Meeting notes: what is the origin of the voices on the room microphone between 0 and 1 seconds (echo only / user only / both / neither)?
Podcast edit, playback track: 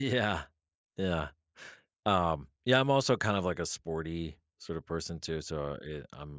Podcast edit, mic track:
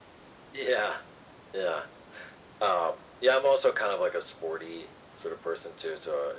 echo only